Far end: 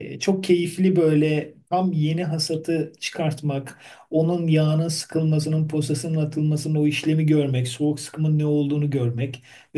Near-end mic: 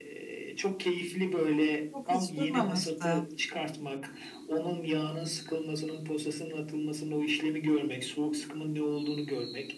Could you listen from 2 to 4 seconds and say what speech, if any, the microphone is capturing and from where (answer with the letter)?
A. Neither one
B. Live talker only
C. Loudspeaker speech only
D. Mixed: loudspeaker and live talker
D